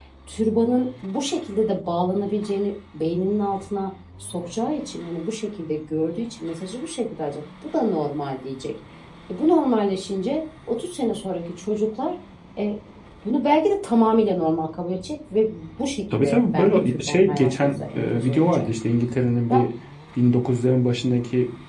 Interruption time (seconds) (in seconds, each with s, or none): 16.1 s